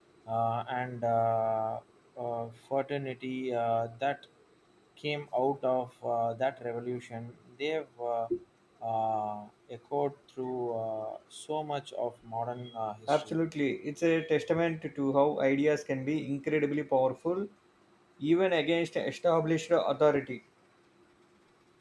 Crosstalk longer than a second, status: none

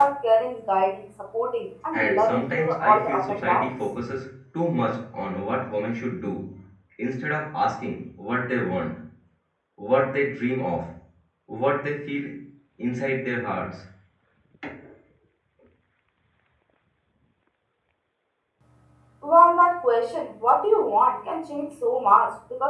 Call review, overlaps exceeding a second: present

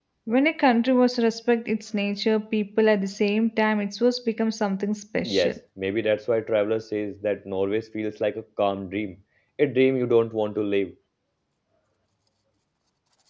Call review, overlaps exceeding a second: none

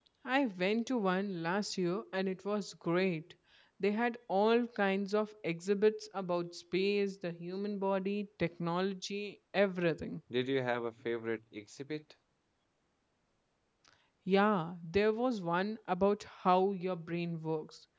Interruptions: none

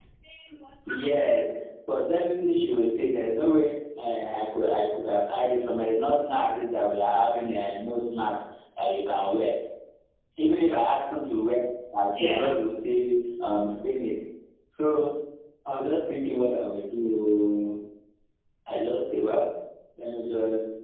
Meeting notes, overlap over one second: none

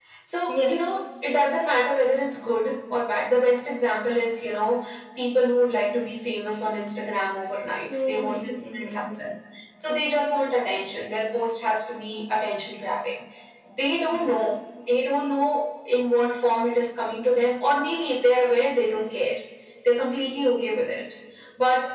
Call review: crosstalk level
present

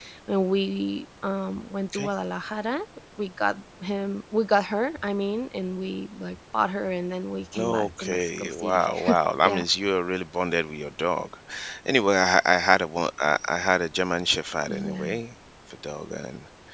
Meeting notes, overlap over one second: present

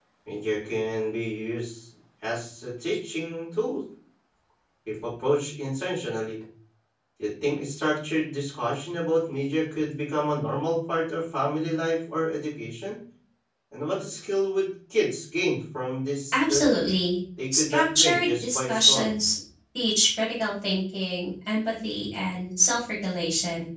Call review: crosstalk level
present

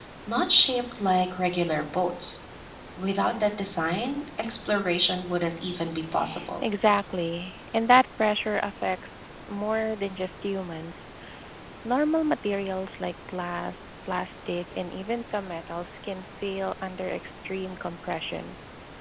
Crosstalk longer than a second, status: none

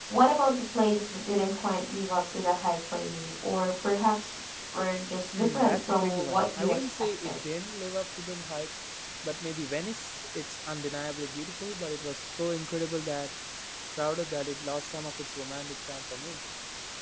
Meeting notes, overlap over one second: present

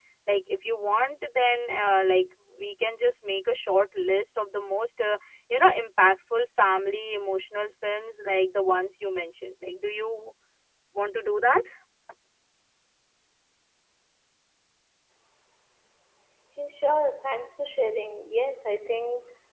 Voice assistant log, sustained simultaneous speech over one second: none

